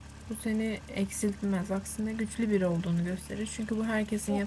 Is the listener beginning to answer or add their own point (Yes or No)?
Yes